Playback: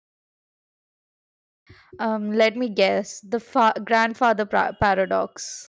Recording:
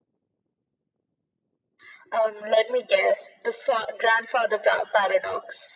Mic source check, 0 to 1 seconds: neither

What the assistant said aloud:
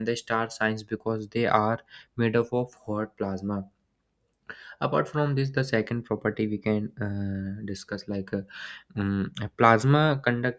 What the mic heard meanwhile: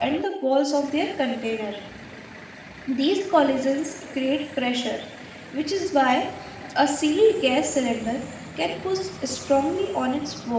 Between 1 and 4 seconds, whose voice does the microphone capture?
user only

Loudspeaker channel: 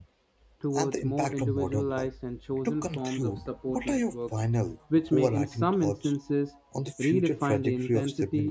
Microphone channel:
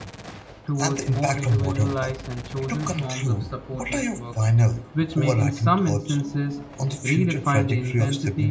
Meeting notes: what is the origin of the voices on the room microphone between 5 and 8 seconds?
echo only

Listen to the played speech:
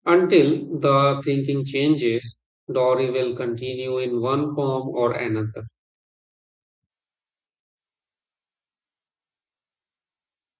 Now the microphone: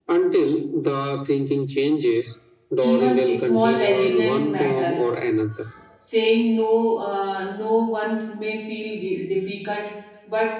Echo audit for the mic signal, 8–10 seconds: user only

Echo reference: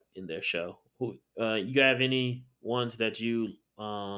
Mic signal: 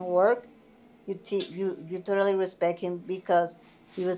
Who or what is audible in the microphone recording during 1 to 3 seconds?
user only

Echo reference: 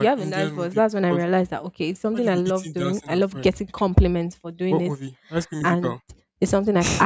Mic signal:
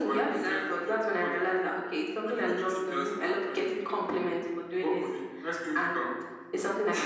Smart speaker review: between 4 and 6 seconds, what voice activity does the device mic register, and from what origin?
echo only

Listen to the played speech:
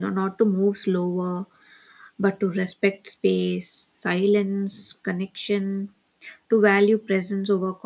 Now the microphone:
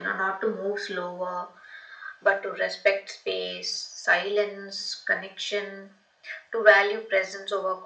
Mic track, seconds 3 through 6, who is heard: echo only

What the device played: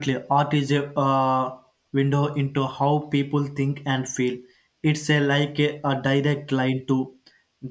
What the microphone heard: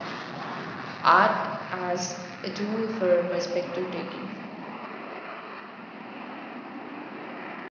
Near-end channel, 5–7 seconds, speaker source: neither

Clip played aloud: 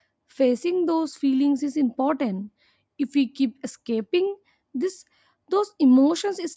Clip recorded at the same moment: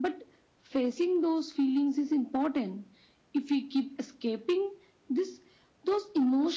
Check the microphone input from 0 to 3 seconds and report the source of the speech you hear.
echo only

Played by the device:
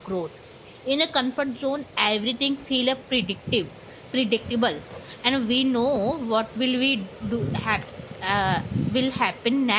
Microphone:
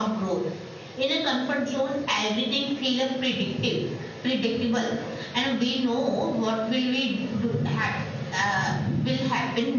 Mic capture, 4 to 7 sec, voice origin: echo only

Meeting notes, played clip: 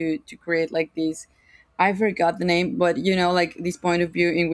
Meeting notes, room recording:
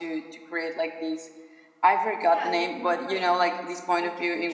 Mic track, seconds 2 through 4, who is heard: both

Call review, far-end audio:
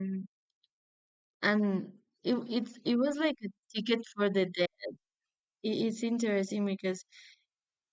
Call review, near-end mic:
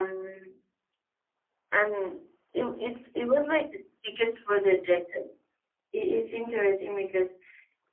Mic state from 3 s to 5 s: echo only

